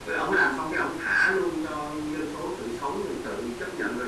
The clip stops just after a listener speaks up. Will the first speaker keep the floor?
Yes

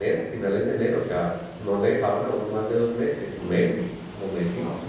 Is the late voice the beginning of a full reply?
No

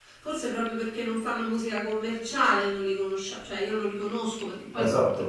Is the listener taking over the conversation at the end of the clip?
No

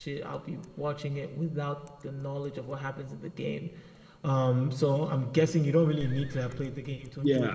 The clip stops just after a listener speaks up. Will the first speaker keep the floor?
No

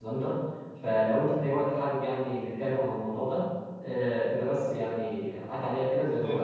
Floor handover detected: Yes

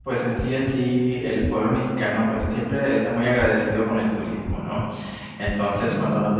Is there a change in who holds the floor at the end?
No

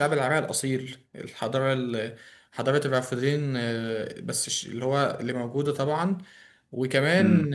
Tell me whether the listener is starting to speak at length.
No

